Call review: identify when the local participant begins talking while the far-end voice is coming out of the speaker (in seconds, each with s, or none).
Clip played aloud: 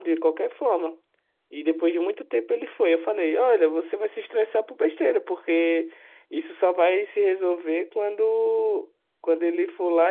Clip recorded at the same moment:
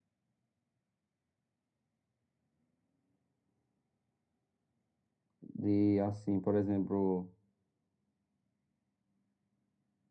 5.4 s